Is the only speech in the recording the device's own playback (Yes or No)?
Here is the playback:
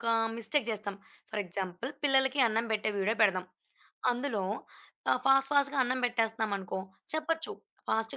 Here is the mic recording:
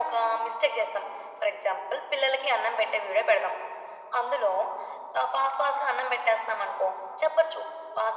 Yes